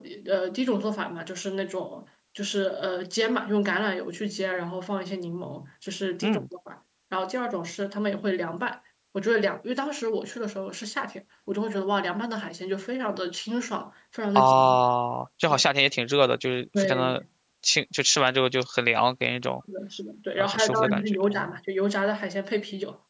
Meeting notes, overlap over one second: present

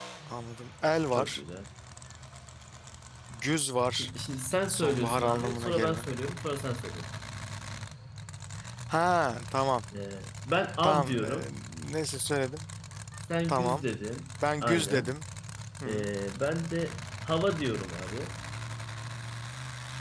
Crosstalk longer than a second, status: present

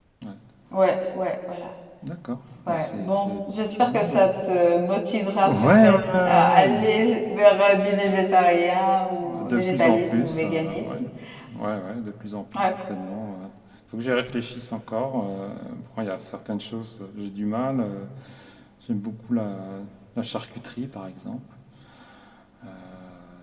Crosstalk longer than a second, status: present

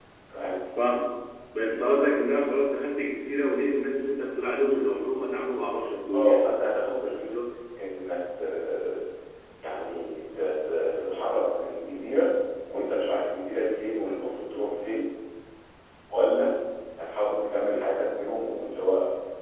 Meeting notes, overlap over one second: none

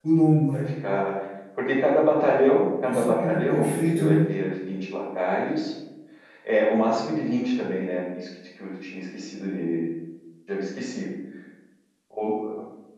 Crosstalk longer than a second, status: present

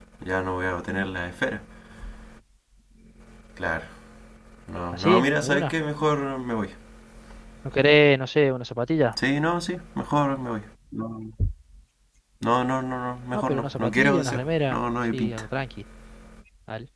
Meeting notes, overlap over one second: present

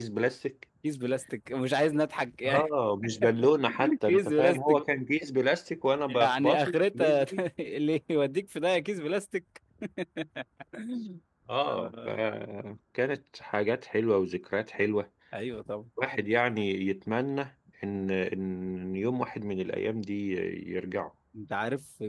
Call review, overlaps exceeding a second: present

